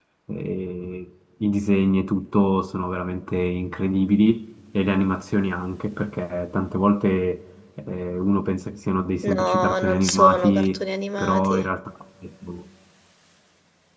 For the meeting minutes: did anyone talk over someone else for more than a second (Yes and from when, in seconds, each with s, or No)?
Yes, from 9.2 s